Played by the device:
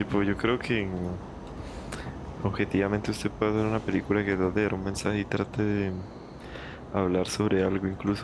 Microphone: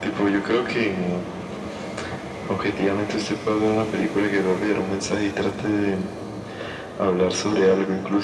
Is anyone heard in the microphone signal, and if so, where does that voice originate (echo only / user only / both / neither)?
echo only